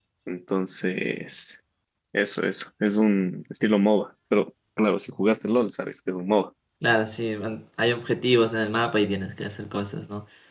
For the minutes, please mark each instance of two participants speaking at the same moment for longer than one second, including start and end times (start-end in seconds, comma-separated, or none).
none